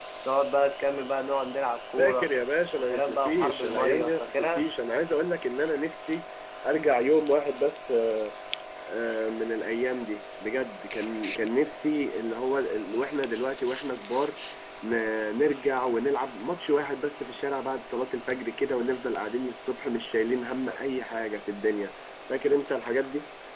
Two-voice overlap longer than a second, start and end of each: 2.8-4.6

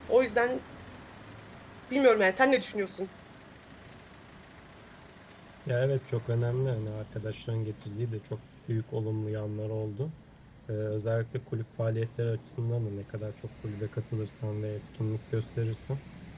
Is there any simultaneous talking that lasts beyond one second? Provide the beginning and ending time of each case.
none

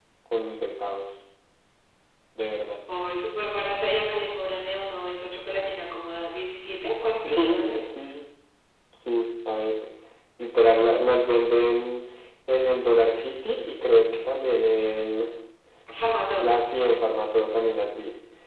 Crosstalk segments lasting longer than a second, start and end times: none

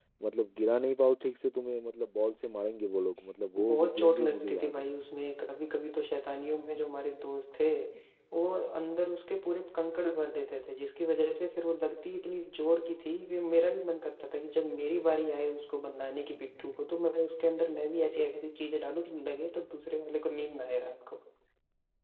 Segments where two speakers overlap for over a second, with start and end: 3.6-4.9

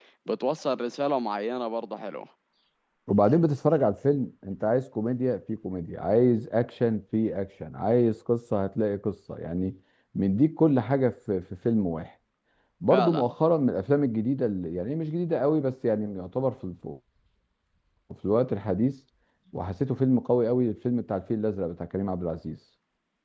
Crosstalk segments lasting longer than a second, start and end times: none

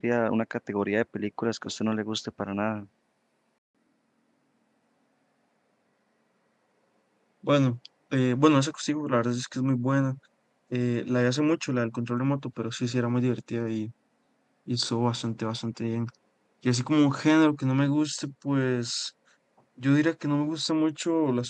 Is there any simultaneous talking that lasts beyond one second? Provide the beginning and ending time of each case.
none

